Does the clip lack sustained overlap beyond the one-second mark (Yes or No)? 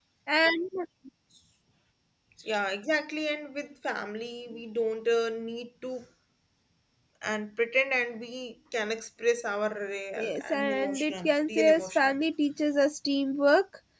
No